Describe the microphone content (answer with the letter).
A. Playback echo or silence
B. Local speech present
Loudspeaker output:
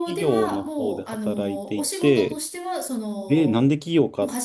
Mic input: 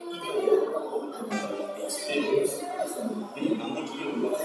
A